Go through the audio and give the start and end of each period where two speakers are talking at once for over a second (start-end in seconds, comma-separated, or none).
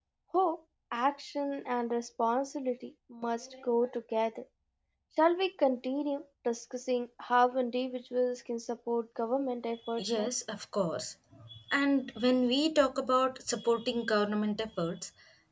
none